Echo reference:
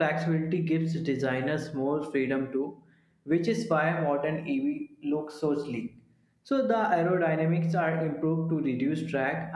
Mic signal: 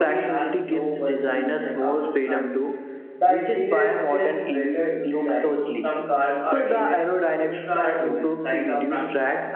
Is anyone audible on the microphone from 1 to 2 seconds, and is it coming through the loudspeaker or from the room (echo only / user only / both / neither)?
both